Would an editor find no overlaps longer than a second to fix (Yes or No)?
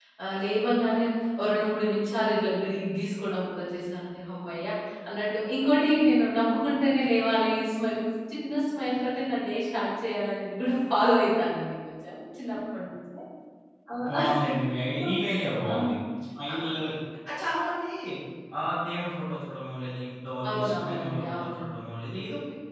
No